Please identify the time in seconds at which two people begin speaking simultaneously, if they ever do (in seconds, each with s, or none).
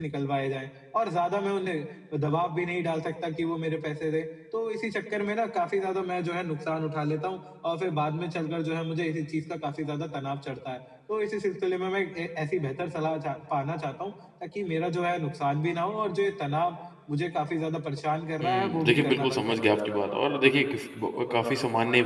18.4 s